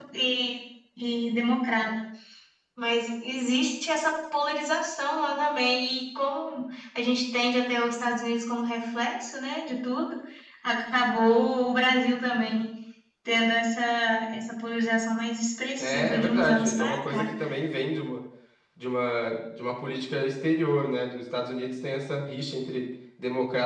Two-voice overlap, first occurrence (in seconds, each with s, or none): 15.8 s